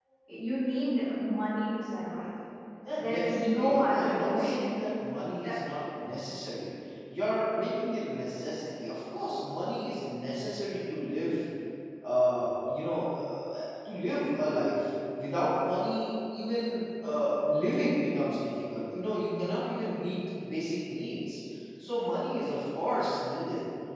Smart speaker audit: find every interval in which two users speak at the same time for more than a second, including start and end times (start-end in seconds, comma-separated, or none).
3.0-4.6